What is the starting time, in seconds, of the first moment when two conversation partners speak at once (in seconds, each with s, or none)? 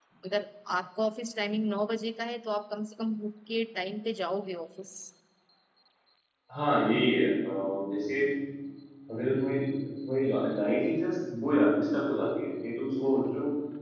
none